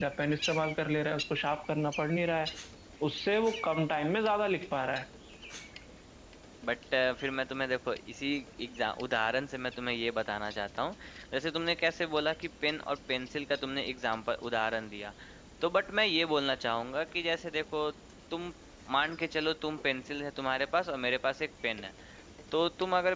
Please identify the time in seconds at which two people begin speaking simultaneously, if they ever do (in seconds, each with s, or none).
none